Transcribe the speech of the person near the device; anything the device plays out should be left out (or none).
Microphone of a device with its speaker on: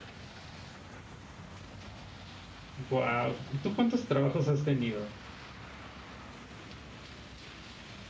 Guau. ¿Tú cuántos trabajos has tenido?